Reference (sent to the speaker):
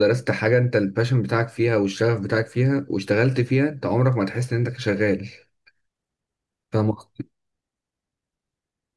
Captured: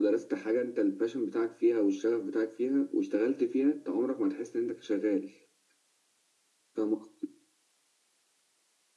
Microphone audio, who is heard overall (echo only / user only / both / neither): echo only